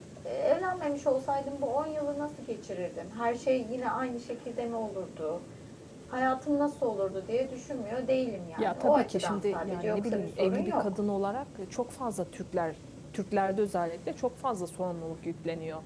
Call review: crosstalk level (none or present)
present